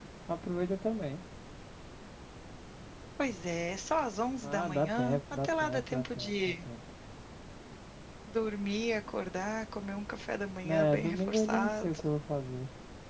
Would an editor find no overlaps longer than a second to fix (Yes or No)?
No